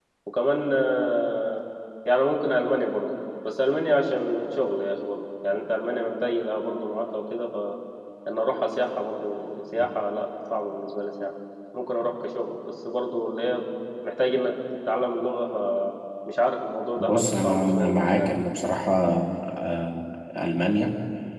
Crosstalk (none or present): present